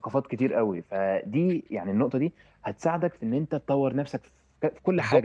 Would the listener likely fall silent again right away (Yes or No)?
No